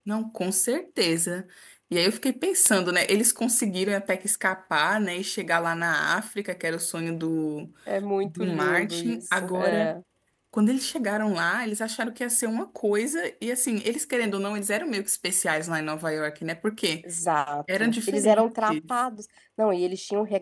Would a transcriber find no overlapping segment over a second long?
No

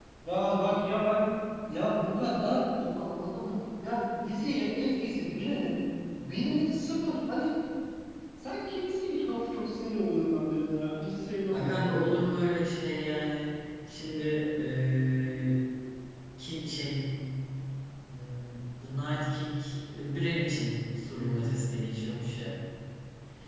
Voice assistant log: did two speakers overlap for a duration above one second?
No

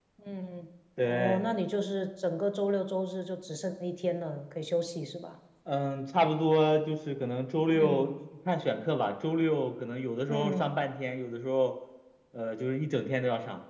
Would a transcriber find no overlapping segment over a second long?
Yes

